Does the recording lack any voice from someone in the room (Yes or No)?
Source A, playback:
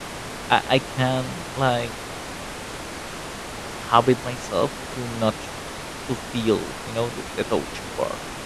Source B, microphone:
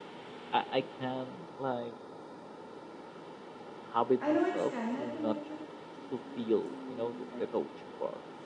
No